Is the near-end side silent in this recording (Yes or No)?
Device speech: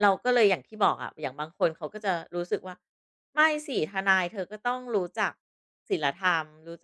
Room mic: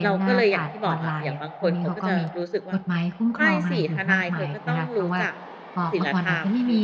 No